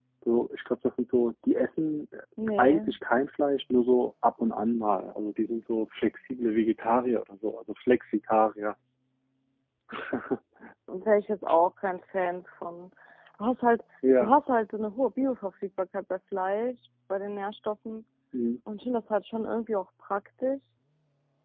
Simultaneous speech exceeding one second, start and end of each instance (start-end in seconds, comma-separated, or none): none